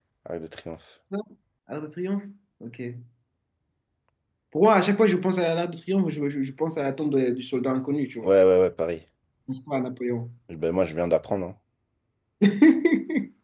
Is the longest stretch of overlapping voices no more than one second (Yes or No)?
Yes